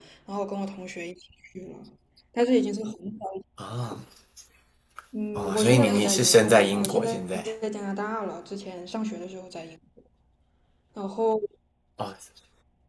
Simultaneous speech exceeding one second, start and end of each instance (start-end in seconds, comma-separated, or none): 5.3-7.4